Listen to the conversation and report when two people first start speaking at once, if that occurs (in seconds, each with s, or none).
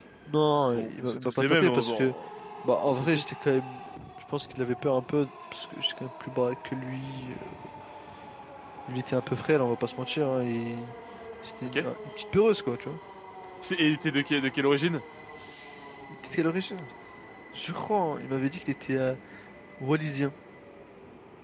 0.7 s